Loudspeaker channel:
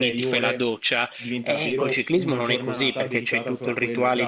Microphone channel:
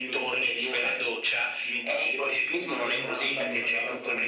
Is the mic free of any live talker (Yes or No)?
No